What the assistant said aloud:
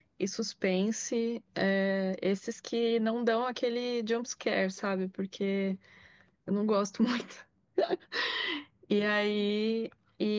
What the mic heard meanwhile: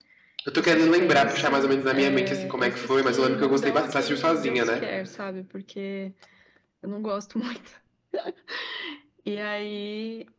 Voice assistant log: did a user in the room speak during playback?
Yes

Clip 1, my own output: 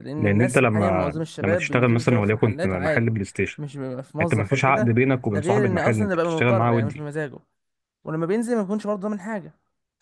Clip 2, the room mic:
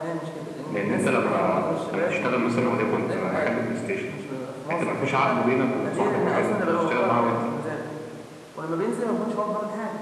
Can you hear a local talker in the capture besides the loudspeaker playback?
No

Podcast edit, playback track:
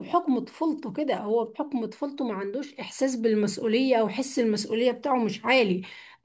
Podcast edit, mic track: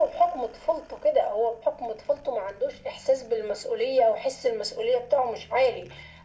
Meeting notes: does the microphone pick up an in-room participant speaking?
No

